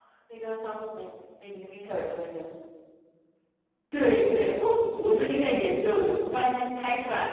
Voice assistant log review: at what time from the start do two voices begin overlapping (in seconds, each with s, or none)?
none